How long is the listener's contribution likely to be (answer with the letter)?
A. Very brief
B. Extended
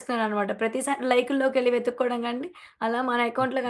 A